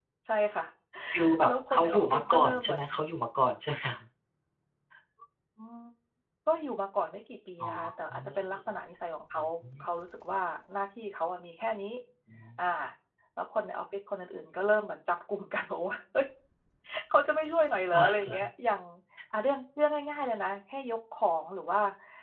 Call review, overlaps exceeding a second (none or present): present